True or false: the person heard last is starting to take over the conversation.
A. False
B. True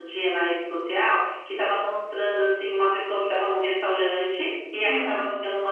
A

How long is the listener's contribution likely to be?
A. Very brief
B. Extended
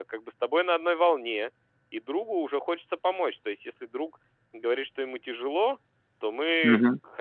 A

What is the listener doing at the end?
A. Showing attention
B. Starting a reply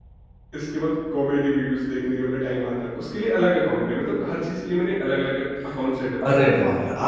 B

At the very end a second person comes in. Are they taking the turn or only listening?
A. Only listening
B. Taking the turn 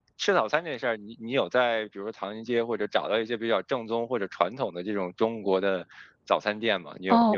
B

